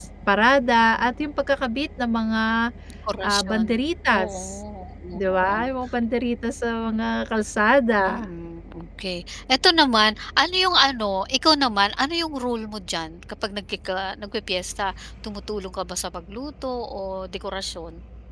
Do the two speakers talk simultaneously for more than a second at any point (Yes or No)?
No